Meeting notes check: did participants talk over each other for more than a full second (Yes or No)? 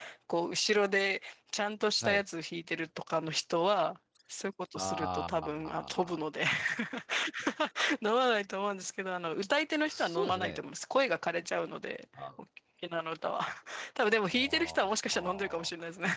Yes